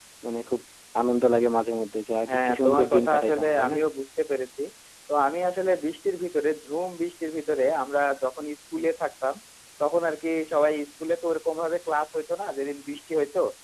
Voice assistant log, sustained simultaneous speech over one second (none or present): present